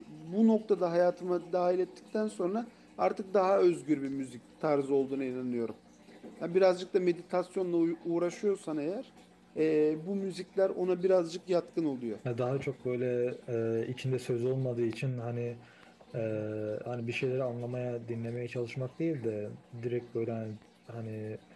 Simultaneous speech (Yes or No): No